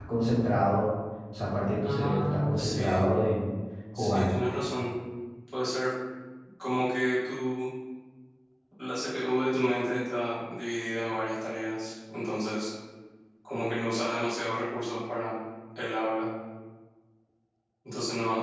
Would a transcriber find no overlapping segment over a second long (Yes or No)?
No